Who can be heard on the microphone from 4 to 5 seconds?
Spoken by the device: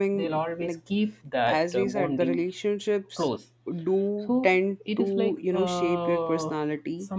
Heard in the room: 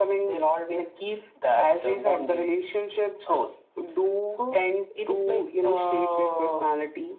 echo only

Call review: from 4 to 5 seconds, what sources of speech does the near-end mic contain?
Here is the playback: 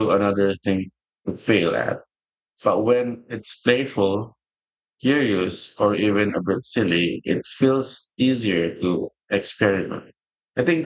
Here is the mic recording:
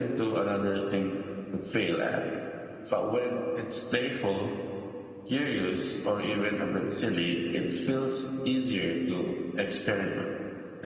echo only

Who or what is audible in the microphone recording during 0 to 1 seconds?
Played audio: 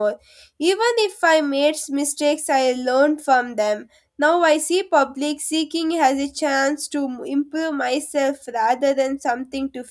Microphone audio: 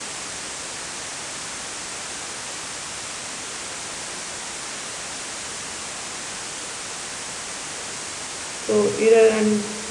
neither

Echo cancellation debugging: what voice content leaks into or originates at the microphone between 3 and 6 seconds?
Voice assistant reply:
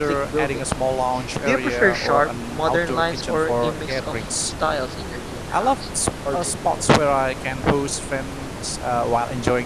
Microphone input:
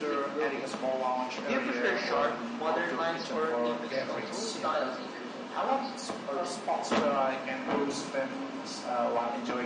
both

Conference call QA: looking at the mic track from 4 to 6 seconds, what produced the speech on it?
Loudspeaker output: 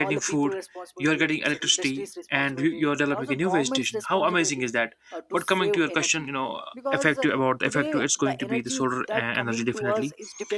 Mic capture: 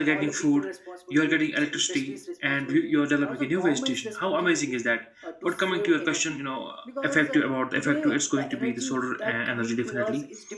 echo only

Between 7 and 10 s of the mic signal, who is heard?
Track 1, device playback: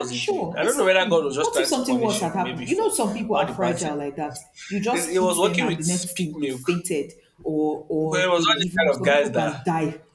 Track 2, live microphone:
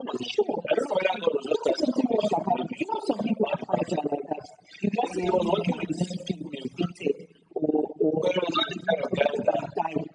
echo only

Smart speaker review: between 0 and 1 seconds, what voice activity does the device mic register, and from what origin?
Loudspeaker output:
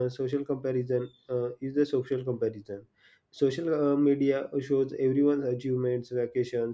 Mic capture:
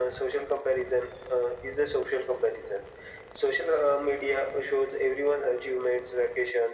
echo only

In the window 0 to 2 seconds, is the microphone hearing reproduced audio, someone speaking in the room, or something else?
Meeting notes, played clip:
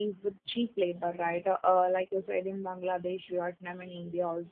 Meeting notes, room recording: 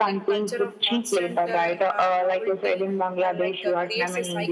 both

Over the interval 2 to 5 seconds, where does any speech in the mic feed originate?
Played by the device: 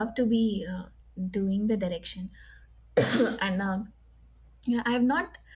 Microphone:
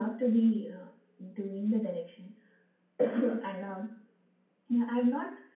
echo only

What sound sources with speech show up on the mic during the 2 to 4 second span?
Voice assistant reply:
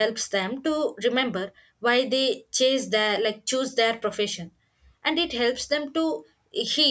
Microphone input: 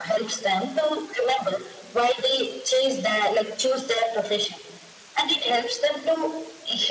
echo only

